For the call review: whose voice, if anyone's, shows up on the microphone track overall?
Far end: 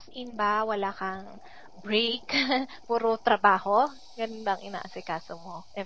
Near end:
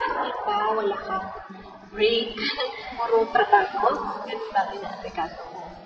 echo only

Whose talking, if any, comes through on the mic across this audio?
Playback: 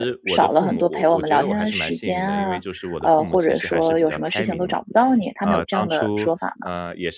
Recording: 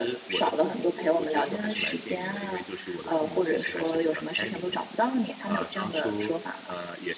echo only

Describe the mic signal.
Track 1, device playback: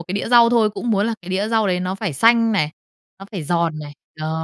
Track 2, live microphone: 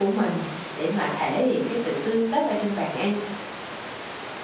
user only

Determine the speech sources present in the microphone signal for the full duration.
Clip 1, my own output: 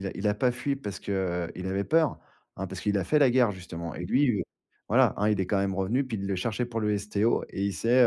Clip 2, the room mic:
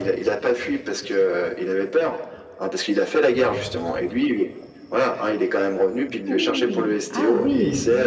both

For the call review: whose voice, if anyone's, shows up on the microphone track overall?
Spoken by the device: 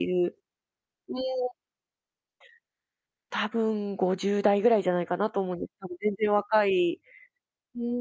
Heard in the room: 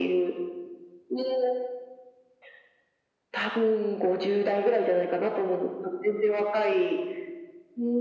echo only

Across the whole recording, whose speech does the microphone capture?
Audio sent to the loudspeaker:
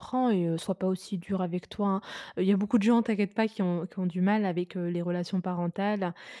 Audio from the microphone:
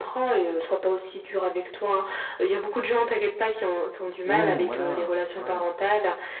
both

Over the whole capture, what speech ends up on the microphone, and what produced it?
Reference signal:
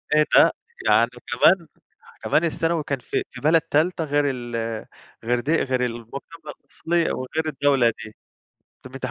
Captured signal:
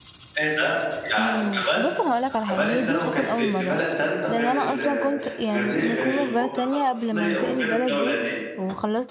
both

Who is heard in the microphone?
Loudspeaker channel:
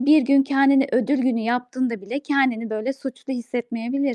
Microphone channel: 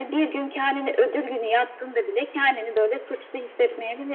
echo only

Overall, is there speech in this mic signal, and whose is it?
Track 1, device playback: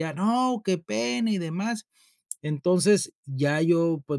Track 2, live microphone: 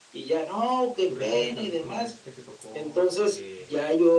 both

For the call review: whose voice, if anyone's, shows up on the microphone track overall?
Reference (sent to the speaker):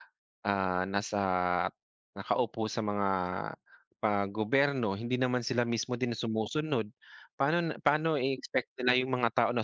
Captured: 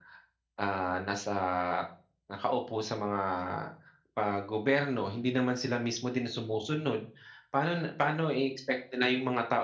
echo only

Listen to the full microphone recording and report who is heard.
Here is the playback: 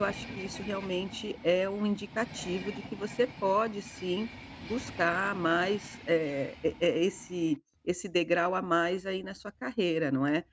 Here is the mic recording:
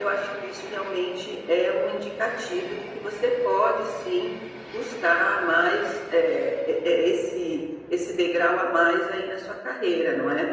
echo only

